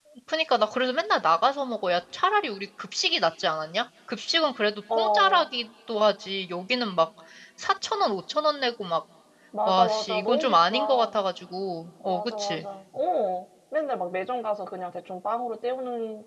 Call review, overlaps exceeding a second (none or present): present